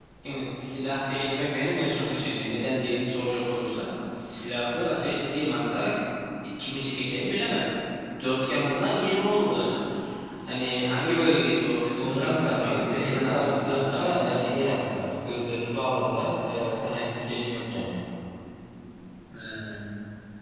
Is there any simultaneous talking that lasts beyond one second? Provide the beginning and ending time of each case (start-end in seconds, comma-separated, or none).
12.0-14.6